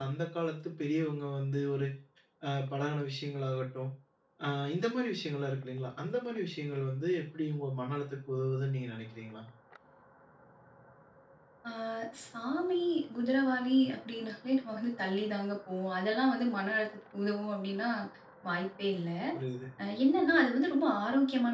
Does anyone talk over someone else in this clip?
No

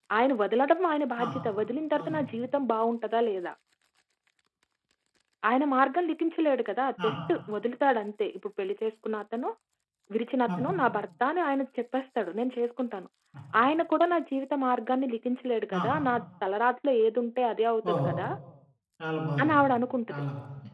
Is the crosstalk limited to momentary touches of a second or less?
Yes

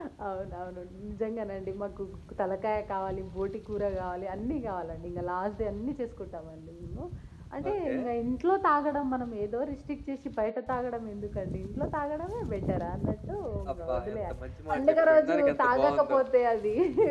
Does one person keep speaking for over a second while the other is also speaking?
Yes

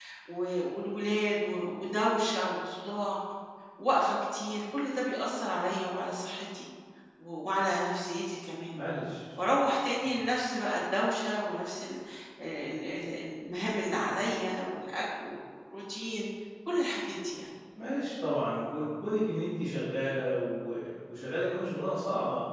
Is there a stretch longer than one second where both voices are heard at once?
No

